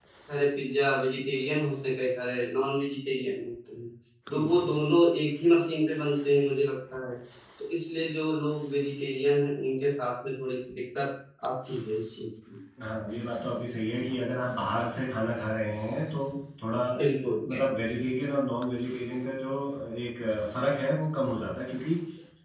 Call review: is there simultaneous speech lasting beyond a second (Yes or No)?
No